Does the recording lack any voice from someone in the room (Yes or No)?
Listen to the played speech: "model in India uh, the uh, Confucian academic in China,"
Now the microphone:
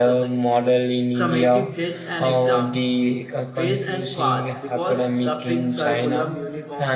No